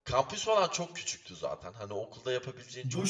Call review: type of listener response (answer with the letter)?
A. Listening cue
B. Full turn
B